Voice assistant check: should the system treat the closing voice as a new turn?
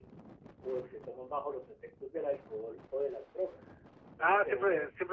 Yes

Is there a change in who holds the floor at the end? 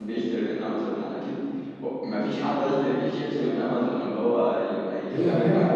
Yes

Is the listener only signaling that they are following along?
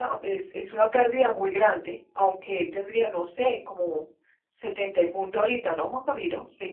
No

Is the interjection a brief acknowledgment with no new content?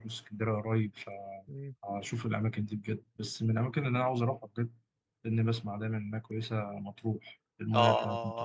No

